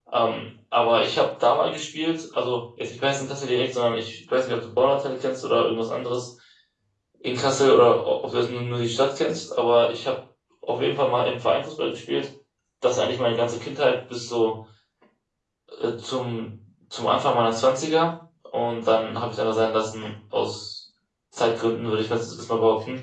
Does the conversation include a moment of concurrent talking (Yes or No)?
No